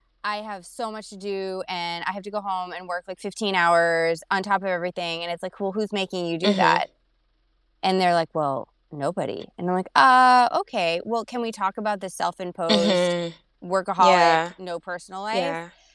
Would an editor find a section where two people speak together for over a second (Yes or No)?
No